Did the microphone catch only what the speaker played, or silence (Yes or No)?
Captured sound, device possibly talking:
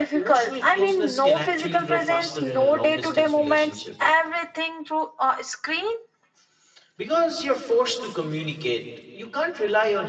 No